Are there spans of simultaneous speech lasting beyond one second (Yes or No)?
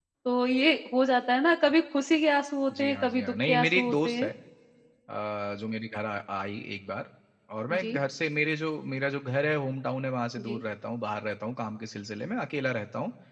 Yes